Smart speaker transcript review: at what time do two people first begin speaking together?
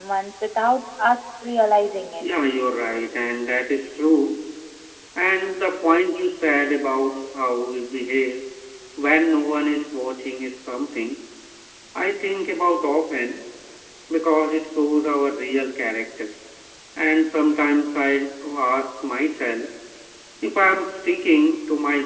none

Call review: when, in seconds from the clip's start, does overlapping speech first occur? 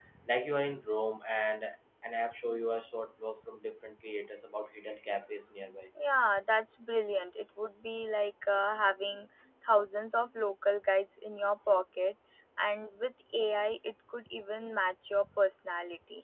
none

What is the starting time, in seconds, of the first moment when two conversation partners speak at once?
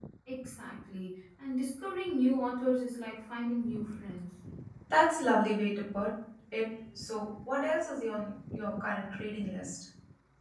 none

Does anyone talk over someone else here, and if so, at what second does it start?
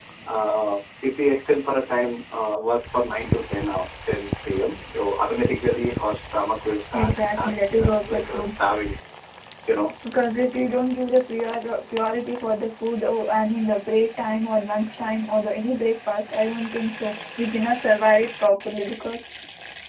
7 s

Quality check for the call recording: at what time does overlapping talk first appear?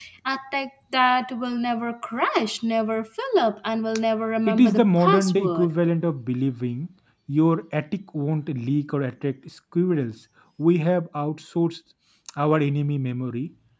4 s

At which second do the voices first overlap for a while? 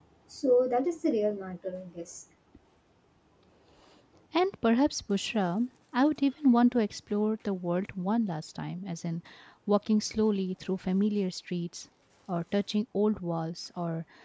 none

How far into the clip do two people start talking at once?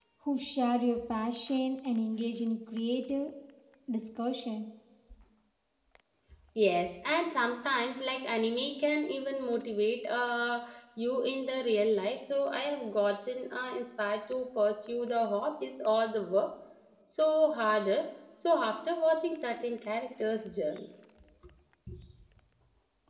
none

